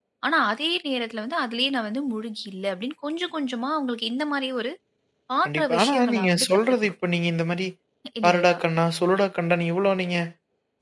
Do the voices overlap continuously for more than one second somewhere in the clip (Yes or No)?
Yes